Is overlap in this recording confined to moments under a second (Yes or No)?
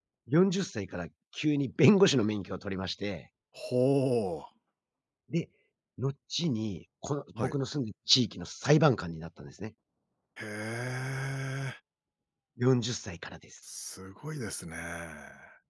Yes